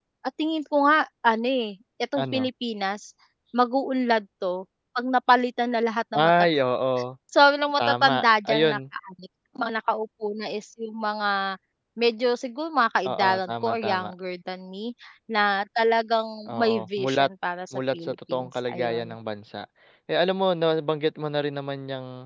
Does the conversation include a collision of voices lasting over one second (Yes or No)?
Yes